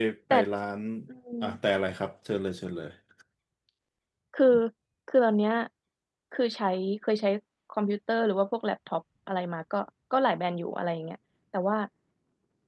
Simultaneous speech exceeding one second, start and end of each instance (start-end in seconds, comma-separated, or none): none